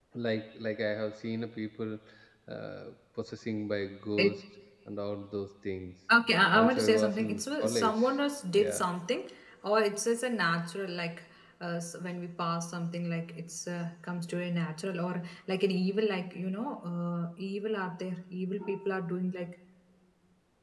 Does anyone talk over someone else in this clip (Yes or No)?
Yes